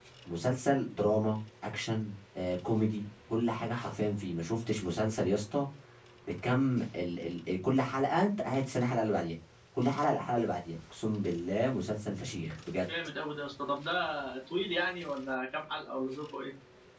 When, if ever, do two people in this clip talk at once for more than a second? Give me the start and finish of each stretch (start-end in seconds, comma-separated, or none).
none